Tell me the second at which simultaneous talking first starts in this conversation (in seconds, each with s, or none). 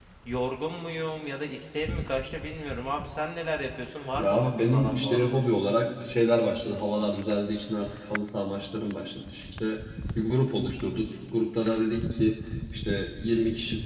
4.2 s